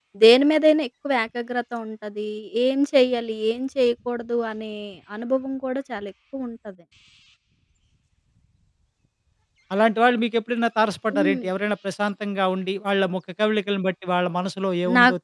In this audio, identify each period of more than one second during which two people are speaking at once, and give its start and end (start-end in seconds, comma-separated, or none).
none